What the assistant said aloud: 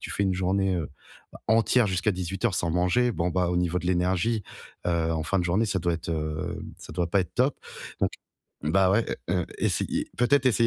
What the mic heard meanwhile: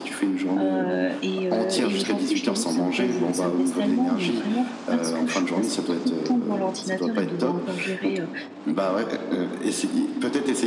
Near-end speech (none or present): present